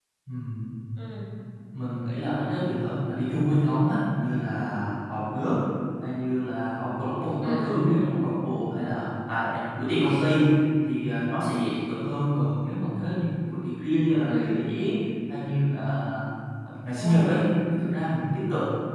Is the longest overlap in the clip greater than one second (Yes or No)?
No